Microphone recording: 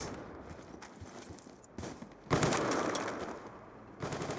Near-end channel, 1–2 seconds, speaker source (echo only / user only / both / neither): neither